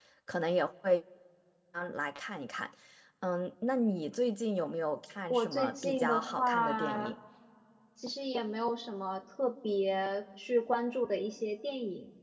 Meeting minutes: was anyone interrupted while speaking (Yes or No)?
Yes